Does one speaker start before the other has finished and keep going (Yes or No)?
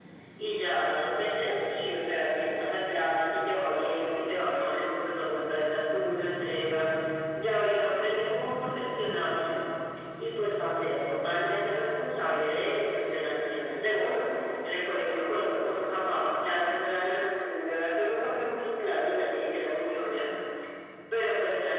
No